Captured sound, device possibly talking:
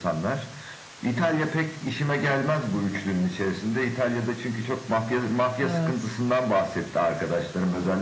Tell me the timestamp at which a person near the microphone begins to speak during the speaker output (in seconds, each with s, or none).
5.6 s